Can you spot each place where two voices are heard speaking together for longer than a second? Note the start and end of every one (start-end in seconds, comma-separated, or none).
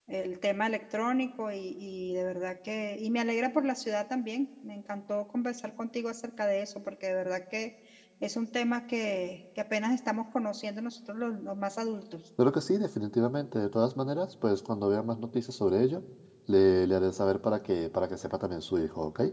none